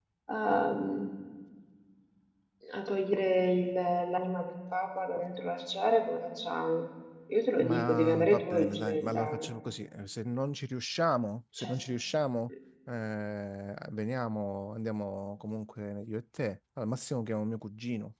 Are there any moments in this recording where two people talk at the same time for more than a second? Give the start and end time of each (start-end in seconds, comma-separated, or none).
7.6-9.5